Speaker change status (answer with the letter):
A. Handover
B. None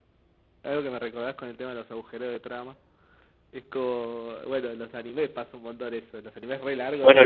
A